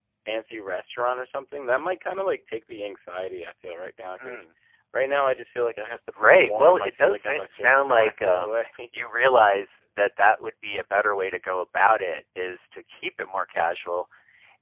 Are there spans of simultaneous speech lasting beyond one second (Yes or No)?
Yes